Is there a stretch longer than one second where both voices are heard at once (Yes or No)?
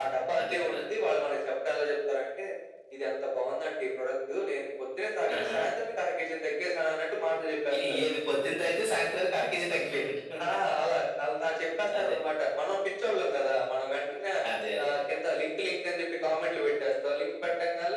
No